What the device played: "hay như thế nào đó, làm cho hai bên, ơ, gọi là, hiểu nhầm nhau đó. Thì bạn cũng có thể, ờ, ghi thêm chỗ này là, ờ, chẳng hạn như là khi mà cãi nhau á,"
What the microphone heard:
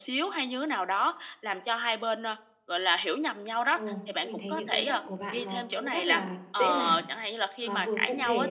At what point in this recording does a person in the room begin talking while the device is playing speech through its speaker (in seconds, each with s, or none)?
3.7 s